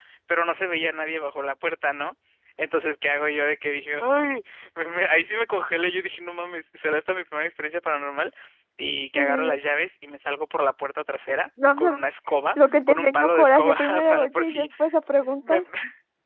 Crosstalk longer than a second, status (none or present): present